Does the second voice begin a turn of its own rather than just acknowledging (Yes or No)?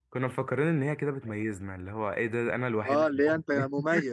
Yes